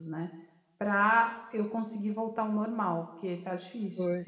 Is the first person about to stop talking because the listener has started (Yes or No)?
Yes